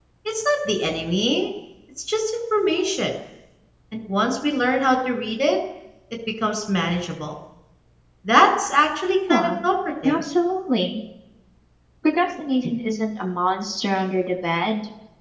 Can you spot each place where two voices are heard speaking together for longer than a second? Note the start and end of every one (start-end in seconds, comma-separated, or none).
none